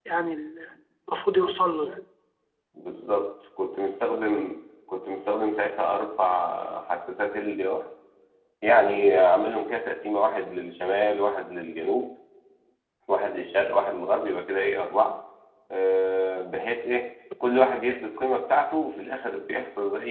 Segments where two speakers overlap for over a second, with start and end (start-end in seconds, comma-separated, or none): none